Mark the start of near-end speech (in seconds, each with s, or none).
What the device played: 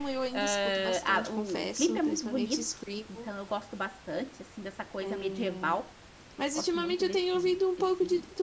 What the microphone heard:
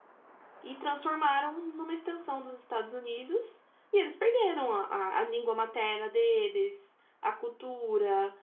0.6 s